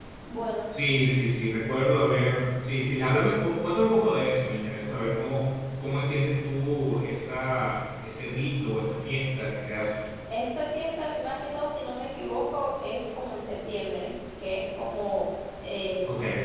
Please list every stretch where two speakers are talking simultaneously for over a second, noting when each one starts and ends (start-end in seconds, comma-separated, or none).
none